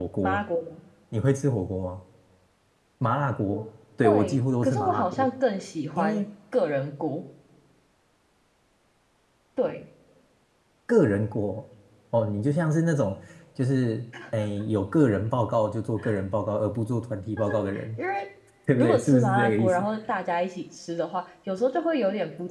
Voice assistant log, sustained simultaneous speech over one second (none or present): present